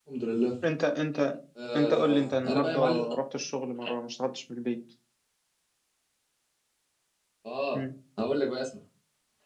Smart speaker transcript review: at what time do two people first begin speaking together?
1.6 s

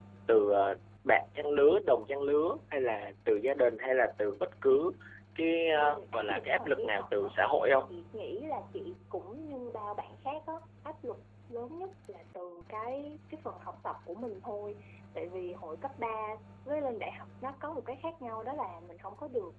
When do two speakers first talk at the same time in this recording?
5.7 s

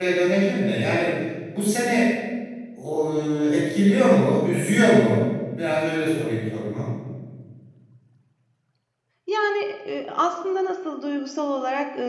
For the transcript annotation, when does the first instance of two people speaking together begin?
none

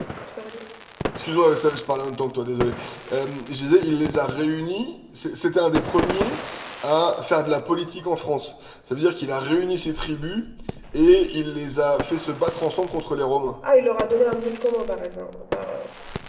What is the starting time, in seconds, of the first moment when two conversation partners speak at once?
none

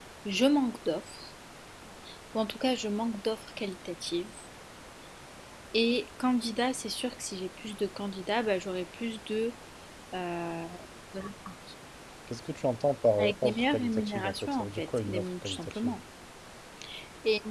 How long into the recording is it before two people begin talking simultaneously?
13.2 s

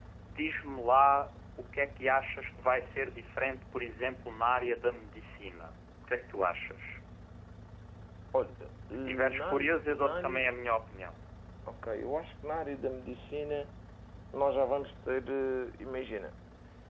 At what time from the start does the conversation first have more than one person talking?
8.9 s

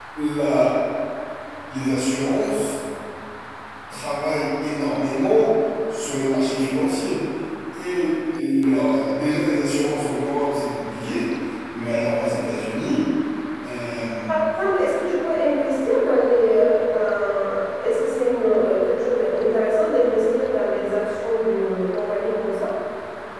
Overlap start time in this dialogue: none

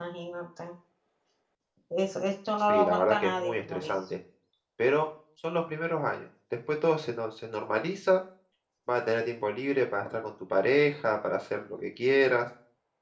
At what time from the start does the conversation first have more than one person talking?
2.7 s

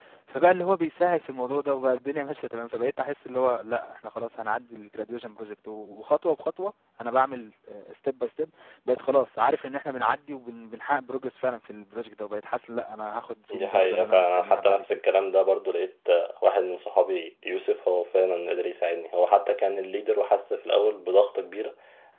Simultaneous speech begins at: 13.5 s

